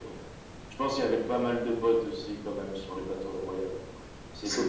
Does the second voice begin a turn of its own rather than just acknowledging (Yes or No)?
Yes